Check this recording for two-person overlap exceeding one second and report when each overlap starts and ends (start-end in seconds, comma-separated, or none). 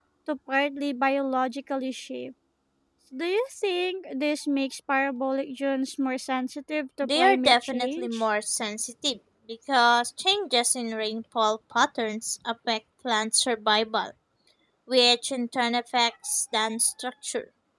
7.0-8.2